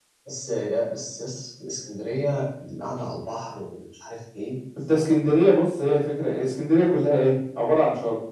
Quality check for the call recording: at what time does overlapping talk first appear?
none

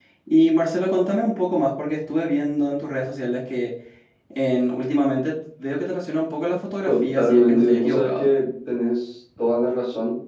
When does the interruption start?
7 s

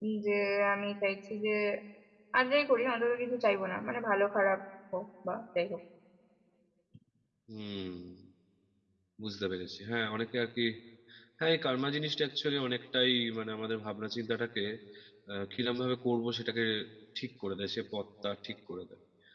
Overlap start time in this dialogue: none

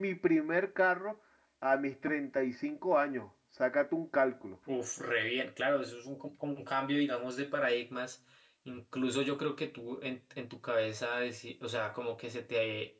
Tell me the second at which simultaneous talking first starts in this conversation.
none

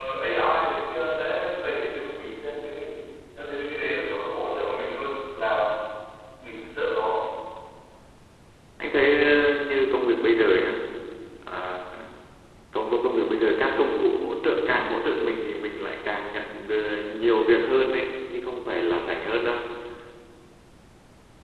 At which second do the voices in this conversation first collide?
none

